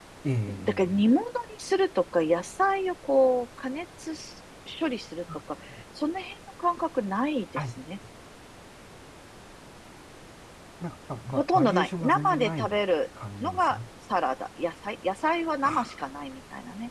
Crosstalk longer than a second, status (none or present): present